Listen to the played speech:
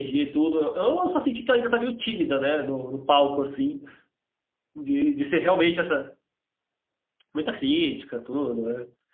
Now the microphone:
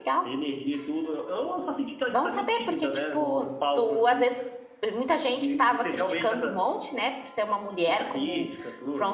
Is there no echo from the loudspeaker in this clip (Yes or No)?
No